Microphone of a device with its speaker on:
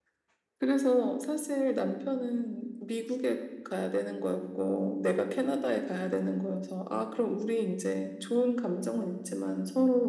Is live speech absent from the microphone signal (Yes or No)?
Yes